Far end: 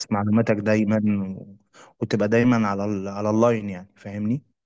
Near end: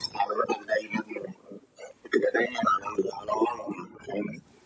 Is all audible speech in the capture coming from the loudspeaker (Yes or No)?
Yes